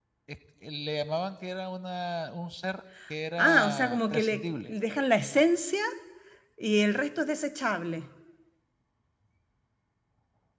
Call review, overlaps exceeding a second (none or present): present